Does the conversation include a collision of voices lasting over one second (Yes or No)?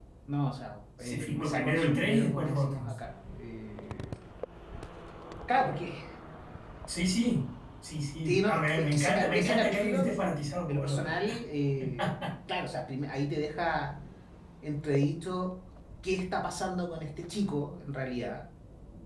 Yes